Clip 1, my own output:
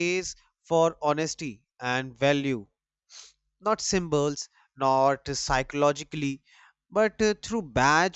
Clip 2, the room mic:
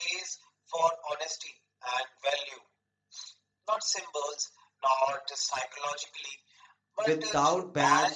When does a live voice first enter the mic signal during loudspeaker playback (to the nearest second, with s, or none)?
7 s